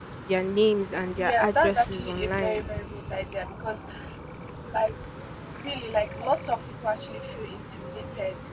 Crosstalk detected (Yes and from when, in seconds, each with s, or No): Yes, from 1.2 s